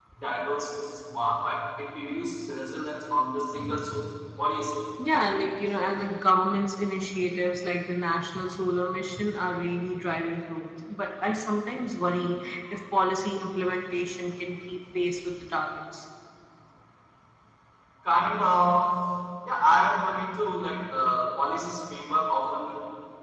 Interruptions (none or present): none